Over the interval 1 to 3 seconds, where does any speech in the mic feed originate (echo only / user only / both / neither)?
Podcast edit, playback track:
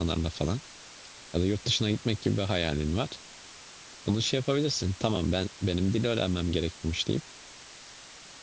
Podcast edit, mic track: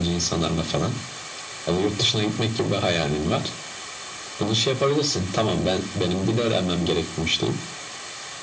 echo only